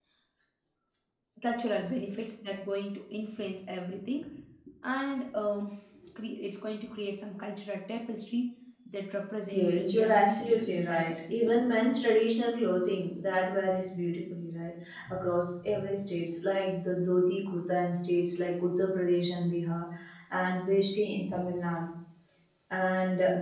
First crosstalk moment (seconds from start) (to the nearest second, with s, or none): 9 s